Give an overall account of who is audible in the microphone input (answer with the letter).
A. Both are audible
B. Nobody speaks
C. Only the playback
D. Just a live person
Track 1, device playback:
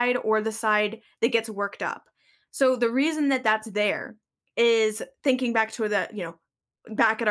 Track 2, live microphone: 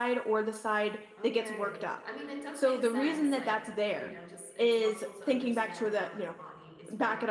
A